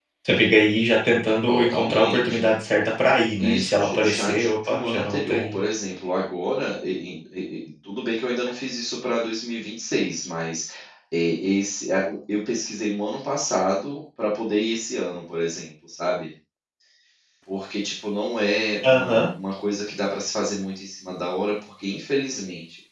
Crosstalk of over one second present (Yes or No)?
Yes